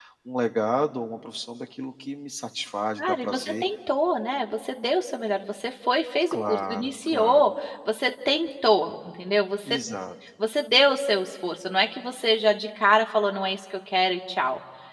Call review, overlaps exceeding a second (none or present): present